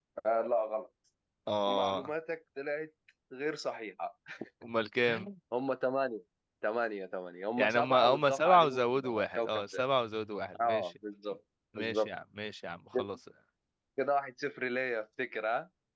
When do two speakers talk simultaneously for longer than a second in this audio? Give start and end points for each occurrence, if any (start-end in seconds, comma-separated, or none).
7.6-9.8